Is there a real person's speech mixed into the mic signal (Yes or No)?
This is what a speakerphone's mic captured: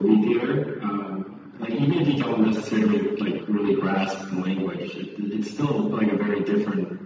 No